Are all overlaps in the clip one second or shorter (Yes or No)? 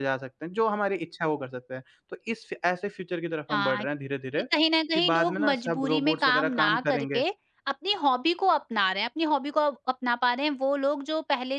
No